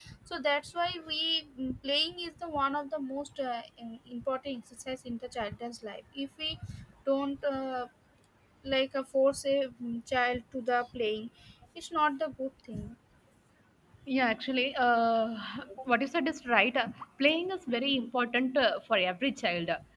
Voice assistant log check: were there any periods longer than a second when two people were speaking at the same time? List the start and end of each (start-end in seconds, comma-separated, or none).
none